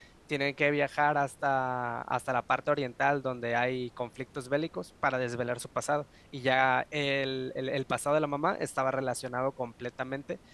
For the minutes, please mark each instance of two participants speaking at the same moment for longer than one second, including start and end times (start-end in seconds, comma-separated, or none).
none